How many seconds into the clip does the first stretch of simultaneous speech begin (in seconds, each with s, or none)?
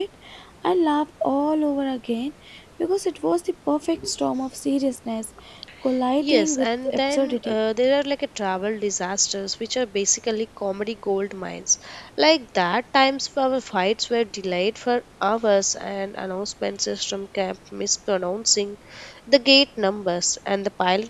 6.2 s